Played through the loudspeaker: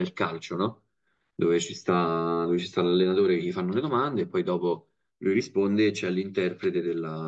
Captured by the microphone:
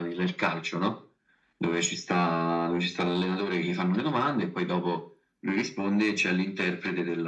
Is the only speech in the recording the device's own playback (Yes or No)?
Yes